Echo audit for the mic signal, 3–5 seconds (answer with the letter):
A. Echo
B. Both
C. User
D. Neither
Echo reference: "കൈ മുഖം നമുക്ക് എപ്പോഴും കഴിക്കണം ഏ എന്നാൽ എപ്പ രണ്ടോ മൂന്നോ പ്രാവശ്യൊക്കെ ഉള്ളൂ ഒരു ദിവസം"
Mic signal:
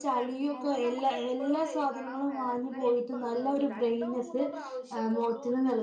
B